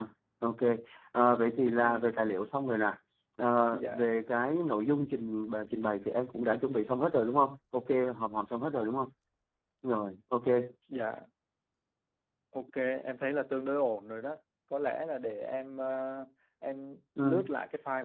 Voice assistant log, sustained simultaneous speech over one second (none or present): none